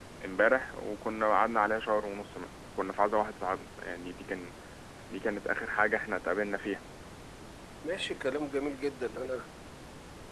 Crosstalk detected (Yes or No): No